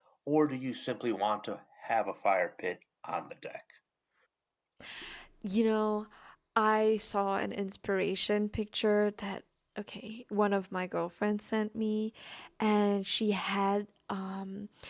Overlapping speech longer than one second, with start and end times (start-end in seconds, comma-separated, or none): none